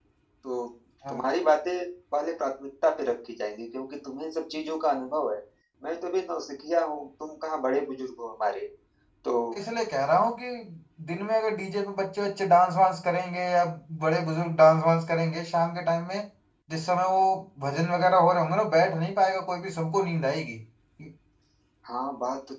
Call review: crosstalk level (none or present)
none